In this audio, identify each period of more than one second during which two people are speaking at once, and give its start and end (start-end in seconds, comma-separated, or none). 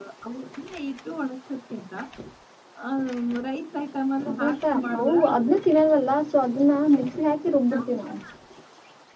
4.3-5.6